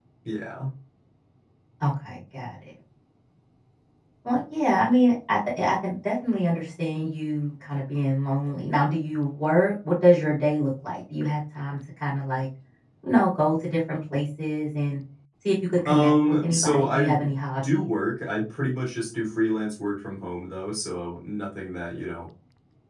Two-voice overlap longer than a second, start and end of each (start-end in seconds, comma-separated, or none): 15.8-17.1